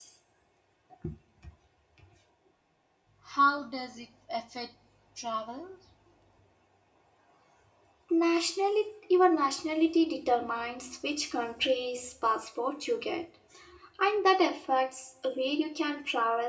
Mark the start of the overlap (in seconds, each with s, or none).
none